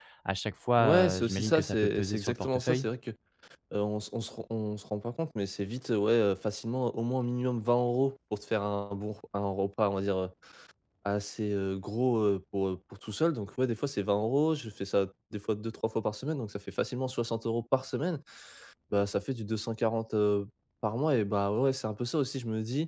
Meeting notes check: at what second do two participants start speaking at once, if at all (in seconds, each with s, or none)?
0.8 s